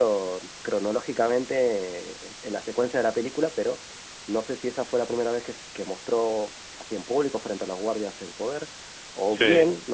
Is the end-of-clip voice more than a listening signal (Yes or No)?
No